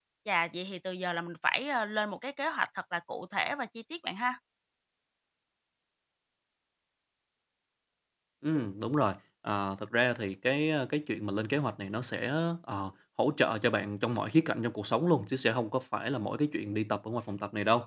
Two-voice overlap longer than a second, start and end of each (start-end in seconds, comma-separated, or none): none